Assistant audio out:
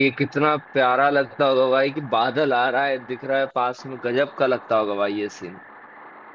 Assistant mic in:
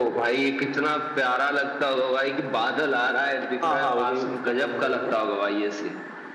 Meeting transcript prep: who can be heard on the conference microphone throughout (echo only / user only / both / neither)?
both